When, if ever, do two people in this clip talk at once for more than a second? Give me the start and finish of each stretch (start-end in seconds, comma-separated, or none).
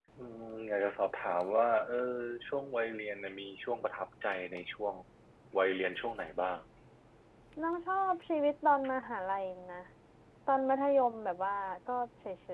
none